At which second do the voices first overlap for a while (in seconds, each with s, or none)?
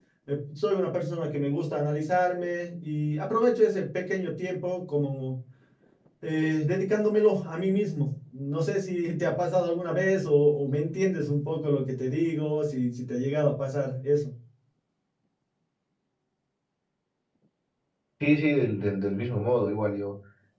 none